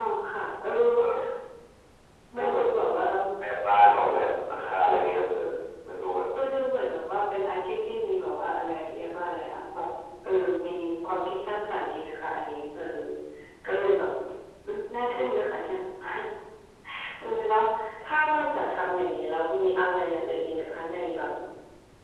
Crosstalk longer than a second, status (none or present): none